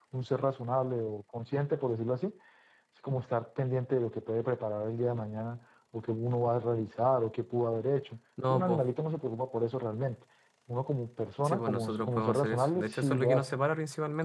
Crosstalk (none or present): present